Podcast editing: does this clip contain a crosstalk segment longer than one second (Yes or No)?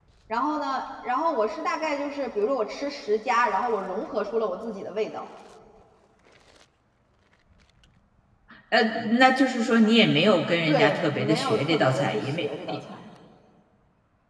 Yes